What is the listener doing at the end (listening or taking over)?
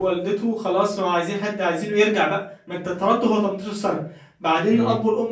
listening